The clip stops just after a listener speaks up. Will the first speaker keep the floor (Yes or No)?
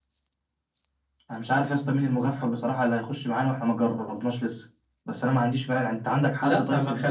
No